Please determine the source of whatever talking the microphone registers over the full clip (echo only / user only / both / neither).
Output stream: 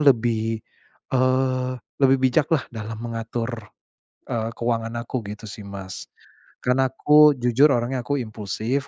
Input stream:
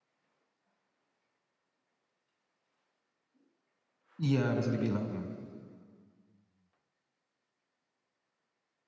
user only